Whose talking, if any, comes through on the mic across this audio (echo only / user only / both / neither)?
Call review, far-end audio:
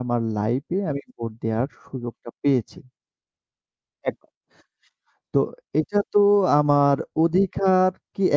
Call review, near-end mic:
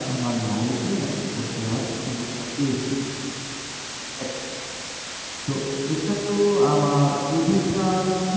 echo only